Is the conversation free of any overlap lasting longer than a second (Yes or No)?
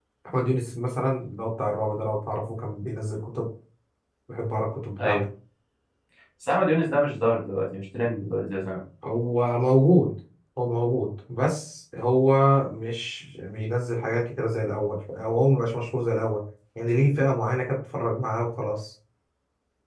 Yes